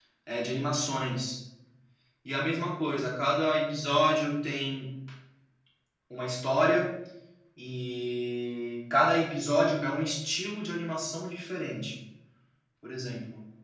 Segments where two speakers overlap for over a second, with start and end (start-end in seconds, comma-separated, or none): none